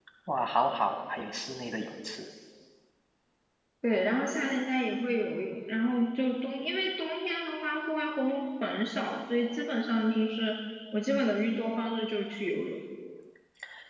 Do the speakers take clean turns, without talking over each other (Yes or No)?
Yes